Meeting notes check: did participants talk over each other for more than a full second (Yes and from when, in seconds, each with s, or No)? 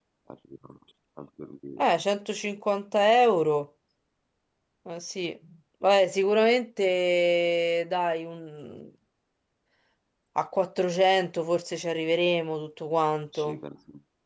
No